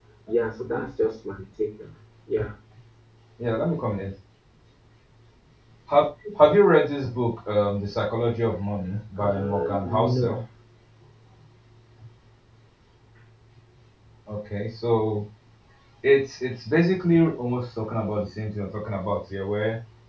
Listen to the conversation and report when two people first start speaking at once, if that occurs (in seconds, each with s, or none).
9.2 s